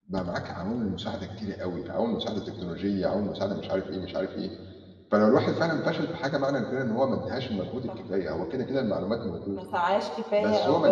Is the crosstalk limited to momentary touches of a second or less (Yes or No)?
Yes